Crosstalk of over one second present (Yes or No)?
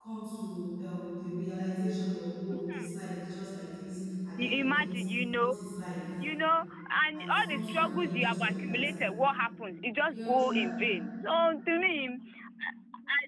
Yes